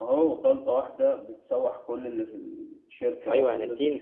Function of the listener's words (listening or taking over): taking over